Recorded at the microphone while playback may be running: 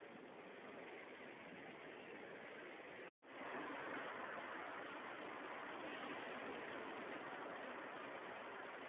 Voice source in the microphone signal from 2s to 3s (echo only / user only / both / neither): neither